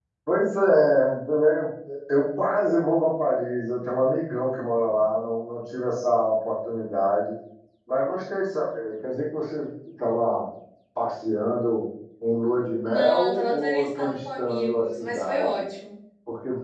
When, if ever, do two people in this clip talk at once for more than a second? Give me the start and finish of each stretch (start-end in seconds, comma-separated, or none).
12.8-15.6